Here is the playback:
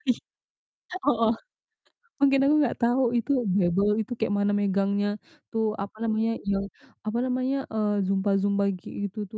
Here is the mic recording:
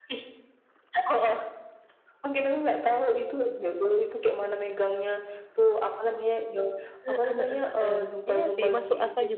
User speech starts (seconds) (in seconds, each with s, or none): 7.0 s